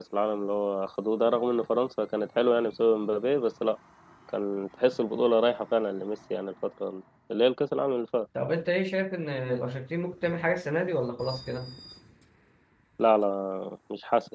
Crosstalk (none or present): none